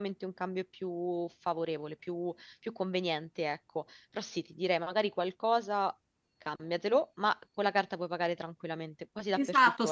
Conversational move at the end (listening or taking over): taking over